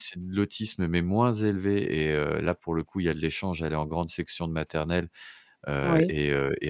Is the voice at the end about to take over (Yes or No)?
No